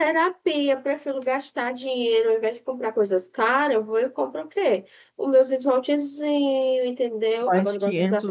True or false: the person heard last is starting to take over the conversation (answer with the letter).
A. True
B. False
A